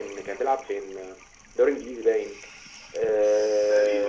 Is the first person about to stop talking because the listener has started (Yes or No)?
No